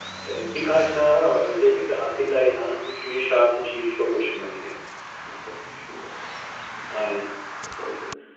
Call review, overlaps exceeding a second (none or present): none